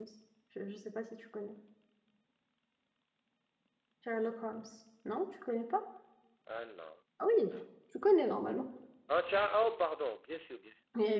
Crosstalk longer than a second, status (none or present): none